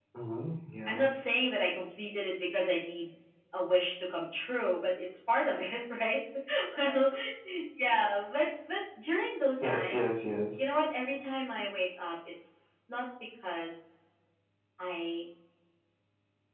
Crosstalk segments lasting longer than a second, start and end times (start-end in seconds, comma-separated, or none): none